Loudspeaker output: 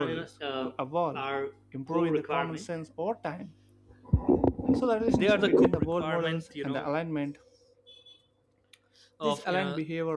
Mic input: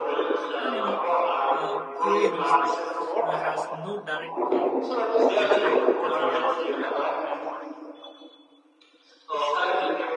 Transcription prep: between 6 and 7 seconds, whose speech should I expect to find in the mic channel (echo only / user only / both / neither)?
both